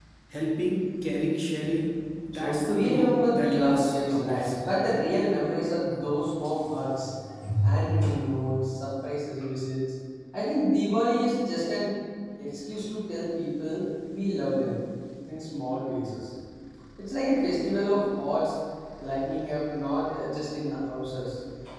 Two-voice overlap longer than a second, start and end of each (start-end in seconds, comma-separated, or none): 2.3-4.5